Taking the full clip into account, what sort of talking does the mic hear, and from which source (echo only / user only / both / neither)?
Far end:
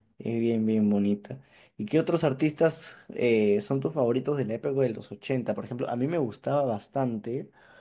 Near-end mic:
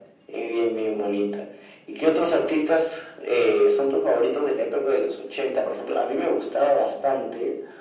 echo only